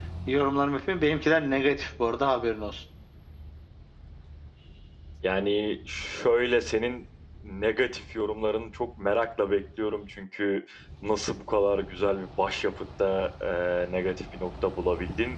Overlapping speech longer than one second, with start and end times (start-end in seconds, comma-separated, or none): none